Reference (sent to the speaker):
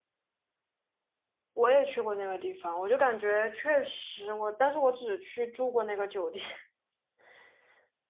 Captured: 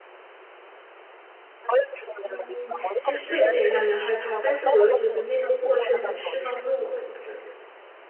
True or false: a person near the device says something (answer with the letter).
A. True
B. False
A